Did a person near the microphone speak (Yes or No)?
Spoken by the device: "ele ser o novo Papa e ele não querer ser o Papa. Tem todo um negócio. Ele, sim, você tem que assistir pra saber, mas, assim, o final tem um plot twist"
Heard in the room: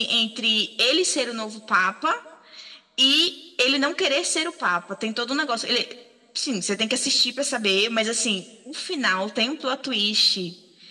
No